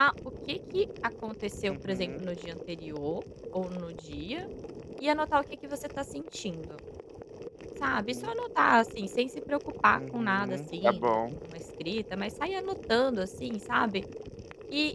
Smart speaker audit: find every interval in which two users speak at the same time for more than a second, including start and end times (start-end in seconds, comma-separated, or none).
9.9-11.2